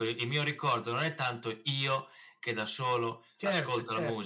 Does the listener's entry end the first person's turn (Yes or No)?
No